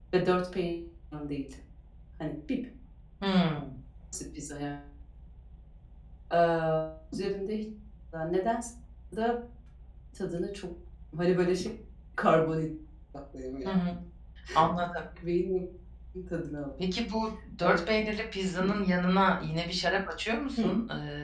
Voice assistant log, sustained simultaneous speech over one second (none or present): none